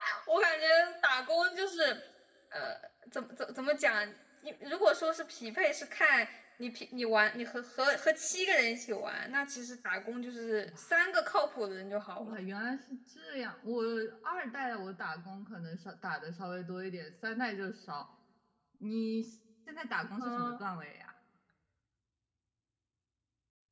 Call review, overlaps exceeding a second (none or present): none